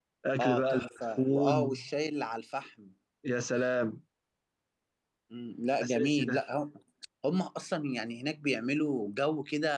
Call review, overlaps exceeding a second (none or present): present